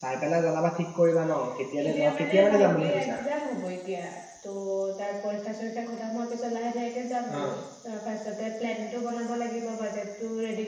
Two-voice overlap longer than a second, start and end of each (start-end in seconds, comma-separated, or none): 1.9-3.2